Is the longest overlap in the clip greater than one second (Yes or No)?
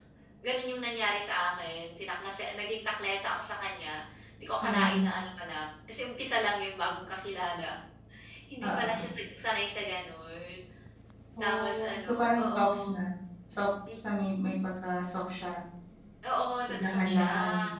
Yes